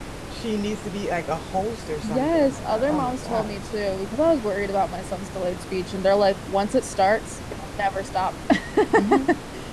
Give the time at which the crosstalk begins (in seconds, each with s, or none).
2.0 s